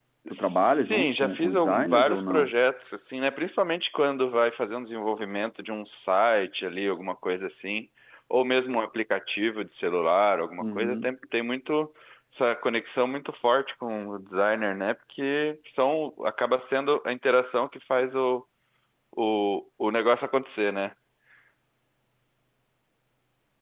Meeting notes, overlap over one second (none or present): present